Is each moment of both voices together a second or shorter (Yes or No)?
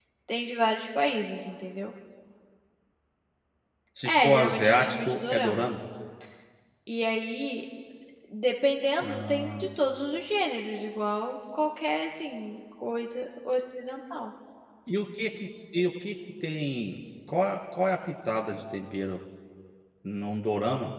No